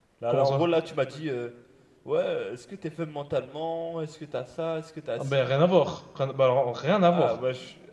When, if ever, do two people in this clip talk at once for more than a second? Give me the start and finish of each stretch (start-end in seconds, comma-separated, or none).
none